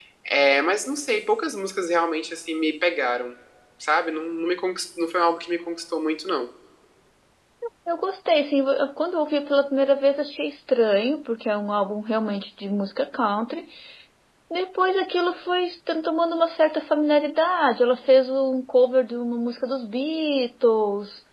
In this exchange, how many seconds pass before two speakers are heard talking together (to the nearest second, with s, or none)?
none